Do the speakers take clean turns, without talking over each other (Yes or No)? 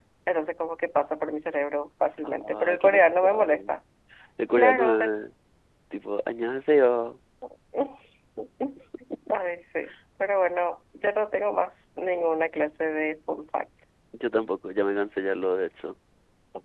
No